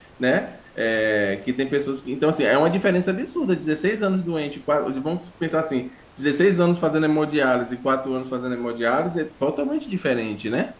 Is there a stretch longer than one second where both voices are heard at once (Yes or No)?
No